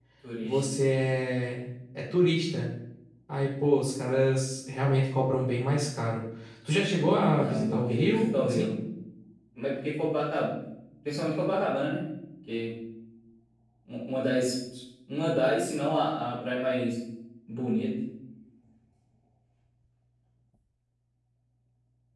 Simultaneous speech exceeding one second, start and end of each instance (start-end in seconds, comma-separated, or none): 7.4-8.7